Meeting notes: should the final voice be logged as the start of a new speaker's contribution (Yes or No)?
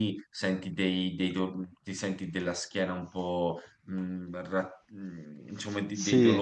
No